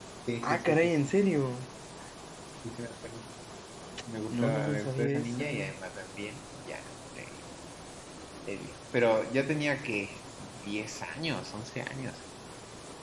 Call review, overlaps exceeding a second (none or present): present